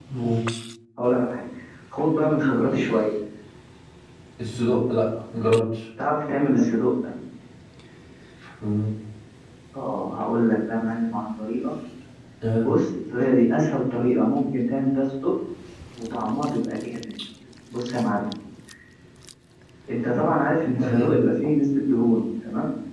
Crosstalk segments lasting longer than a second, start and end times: none

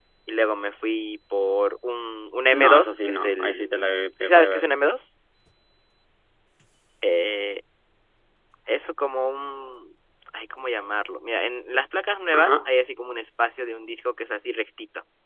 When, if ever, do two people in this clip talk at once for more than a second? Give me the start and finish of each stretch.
2.5-3.7

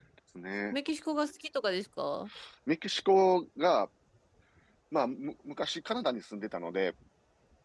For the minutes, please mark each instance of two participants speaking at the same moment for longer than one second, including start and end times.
none

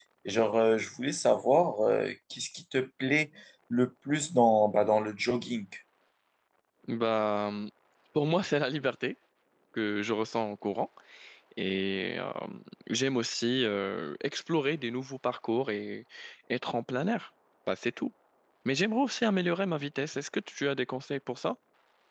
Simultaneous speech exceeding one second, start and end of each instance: none

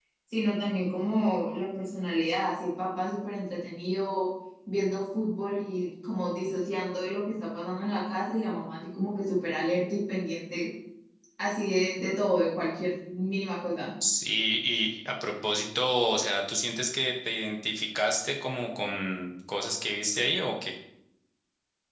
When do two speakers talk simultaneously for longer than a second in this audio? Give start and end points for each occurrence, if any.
none

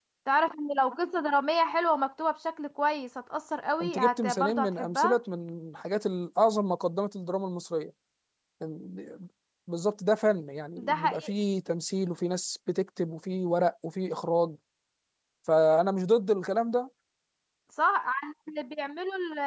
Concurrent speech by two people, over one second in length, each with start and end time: 3.8-5.2

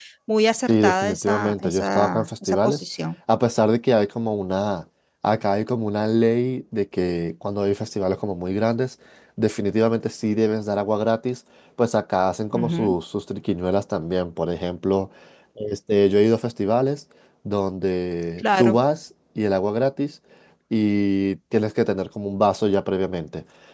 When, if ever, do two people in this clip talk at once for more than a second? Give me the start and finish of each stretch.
0.7-2.8

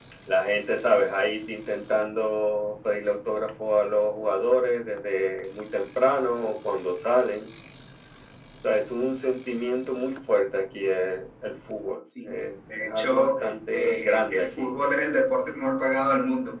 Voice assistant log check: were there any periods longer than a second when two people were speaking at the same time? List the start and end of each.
12.0-14.7

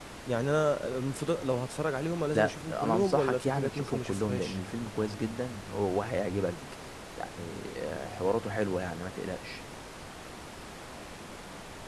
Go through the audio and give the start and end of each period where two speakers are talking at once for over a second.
2.3-4.6

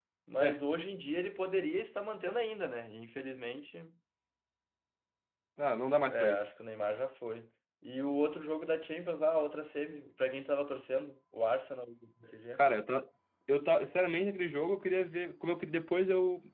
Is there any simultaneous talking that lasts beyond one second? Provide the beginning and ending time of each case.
none

